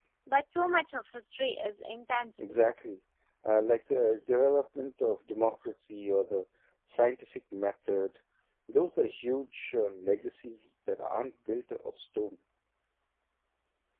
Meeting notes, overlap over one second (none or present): none